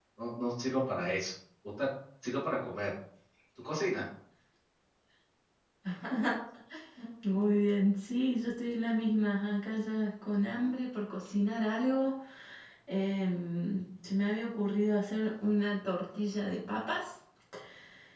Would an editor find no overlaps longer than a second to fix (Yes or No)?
Yes